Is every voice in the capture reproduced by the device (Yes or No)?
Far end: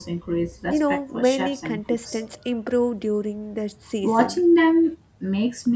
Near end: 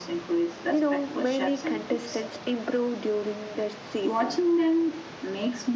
Yes